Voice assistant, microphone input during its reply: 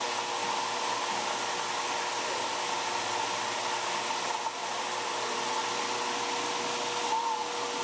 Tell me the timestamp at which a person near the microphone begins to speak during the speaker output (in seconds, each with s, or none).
none